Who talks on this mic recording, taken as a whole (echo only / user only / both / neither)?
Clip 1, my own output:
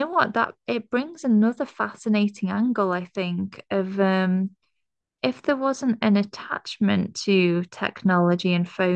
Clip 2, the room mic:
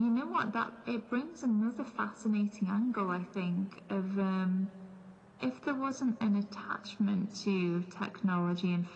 echo only